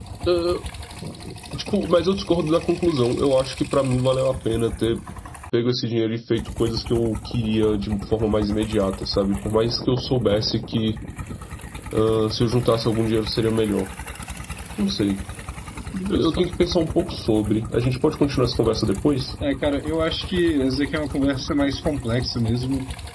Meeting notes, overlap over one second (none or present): none